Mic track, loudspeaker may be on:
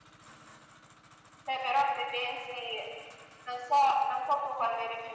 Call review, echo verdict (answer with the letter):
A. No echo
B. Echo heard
B